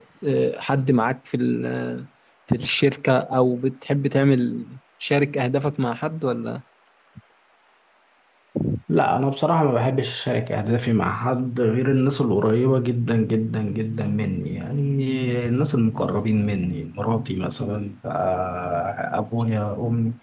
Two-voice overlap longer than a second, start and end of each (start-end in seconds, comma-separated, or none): none